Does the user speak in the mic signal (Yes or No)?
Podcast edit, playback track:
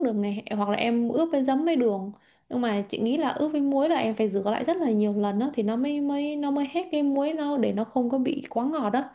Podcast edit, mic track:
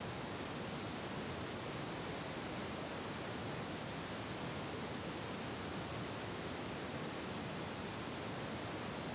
No